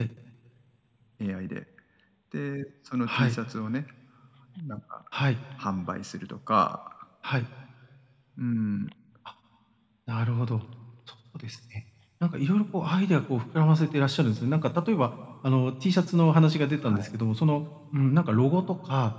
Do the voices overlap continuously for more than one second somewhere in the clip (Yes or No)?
No